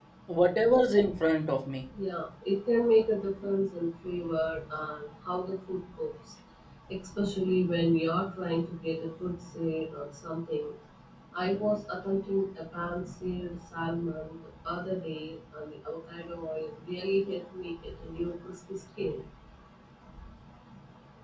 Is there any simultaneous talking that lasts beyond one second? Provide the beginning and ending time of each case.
none

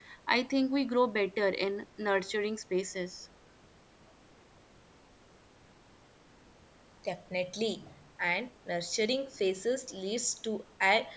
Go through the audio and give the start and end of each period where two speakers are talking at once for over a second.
none

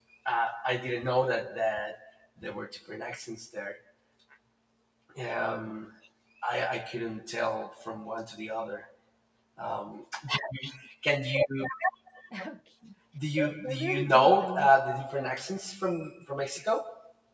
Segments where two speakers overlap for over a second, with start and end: 13.4-14.7

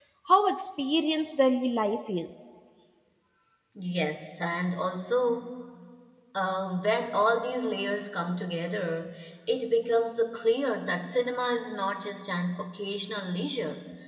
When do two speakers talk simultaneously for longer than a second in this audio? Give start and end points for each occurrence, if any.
none

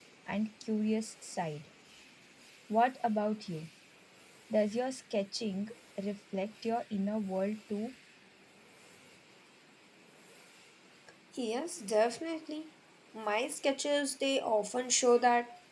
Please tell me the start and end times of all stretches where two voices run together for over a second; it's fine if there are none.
none

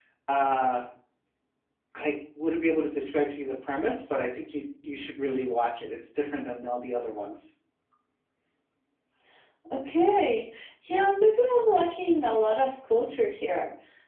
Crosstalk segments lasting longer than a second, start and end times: none

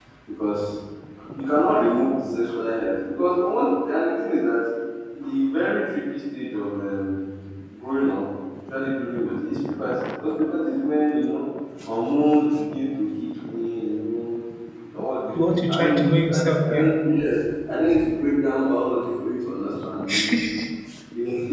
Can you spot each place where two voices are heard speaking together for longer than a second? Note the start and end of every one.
15.4-16.9

